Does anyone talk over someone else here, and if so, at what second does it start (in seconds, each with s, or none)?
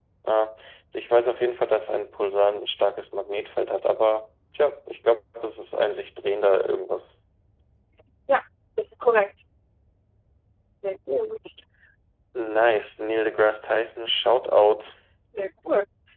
none